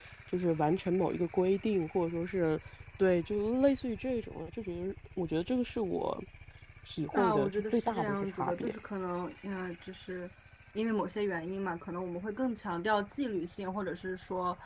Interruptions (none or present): present